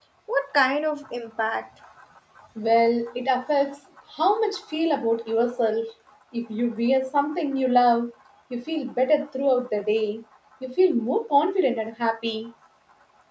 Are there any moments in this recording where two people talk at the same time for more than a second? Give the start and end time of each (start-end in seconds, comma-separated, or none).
none